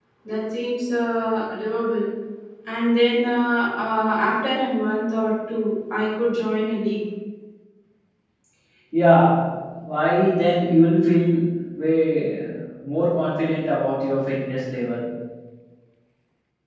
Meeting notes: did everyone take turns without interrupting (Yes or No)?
Yes